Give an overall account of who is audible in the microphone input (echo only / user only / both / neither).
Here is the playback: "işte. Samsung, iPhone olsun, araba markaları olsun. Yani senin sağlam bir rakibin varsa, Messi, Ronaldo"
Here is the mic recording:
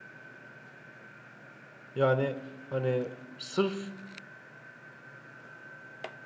user only